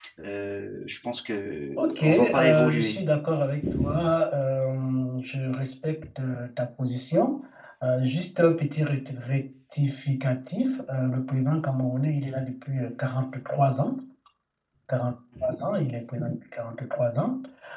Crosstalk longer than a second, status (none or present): present